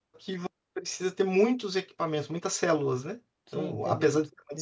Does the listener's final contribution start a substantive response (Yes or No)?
Yes